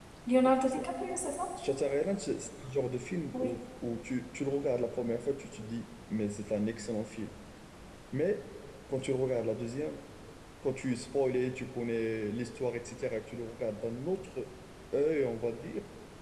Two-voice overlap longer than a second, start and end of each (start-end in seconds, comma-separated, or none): none